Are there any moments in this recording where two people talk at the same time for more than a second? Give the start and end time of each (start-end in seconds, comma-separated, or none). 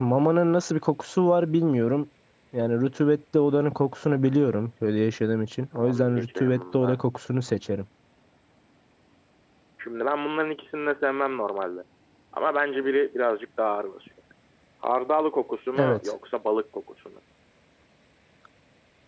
5.7-7.0